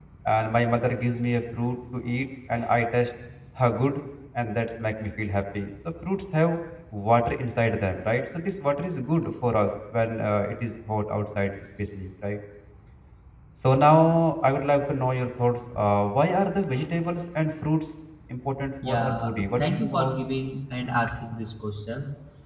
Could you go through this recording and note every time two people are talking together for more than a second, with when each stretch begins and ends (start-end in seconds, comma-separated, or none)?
18.9-20.1